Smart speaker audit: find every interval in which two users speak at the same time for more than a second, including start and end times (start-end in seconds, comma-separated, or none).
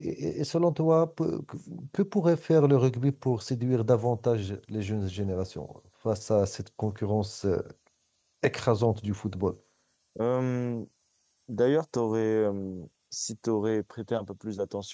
none